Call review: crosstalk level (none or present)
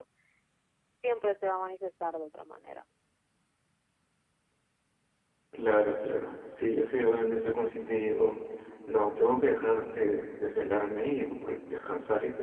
none